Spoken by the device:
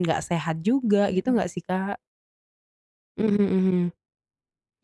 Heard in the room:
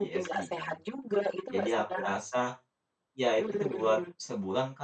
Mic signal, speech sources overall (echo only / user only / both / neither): both